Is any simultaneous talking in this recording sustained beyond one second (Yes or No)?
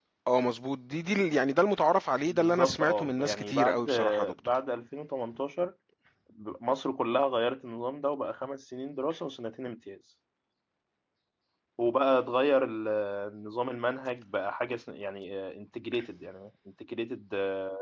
Yes